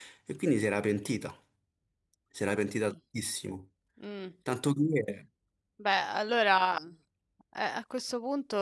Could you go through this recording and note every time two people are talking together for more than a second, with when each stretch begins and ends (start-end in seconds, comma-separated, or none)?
none